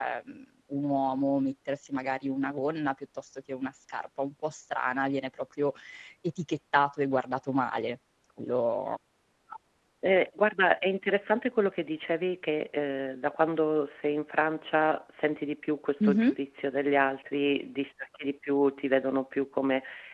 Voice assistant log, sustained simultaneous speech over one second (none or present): none